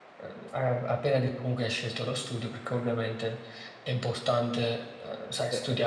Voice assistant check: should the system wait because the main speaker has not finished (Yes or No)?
Yes